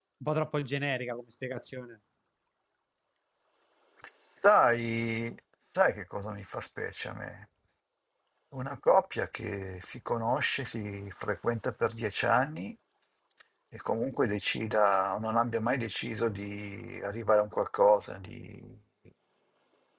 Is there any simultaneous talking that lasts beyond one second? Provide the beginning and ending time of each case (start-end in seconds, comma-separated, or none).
none